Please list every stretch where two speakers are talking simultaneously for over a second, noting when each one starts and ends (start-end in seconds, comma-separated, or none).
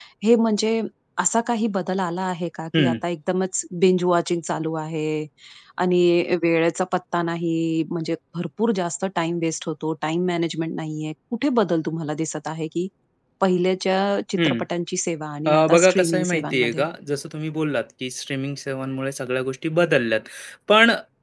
15.5-16.9